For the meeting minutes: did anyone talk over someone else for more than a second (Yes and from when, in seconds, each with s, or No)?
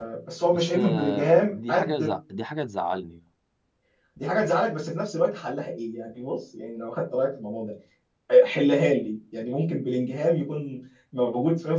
Yes, from 0.5 s